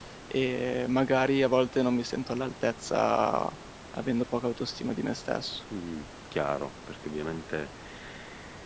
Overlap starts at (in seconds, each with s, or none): none